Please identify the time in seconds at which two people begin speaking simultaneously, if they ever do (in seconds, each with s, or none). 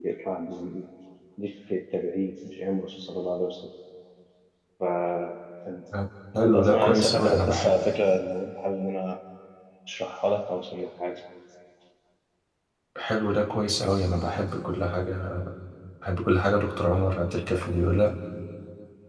6.4 s